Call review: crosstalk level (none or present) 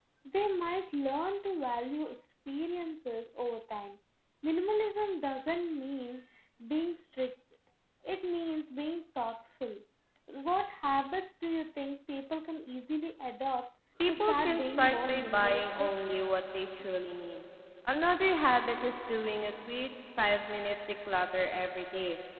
present